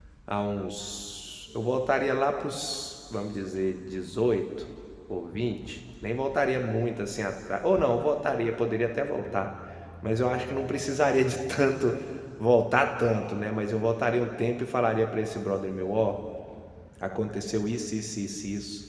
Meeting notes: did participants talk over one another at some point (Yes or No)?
No